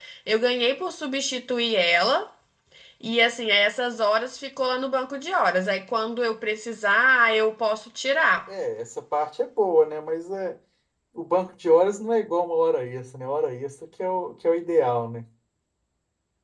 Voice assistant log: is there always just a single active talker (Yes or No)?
Yes